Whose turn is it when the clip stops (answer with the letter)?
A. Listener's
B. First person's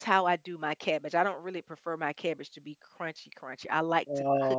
A